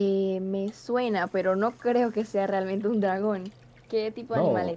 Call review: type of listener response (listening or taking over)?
taking over